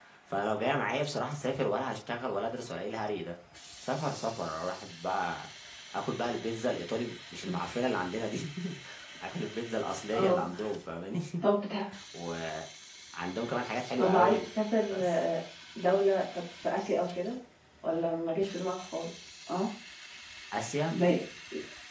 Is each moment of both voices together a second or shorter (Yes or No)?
Yes